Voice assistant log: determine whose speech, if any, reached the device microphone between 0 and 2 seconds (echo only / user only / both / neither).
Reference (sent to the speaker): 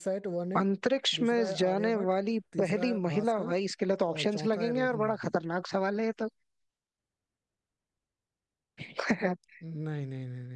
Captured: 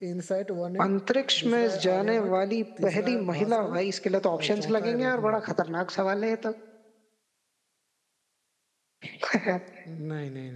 echo only